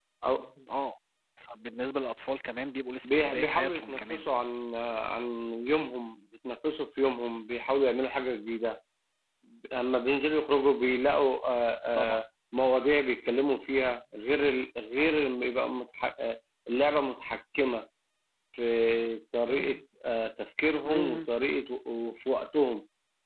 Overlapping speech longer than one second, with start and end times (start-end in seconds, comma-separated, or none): 3.0-4.2